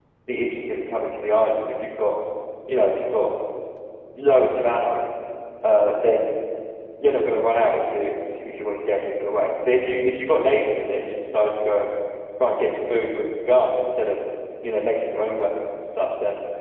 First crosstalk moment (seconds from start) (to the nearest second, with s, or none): none